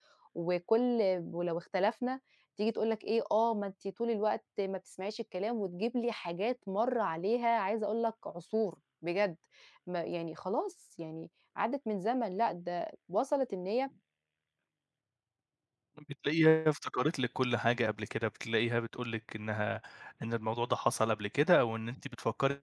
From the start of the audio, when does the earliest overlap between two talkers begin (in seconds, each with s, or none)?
none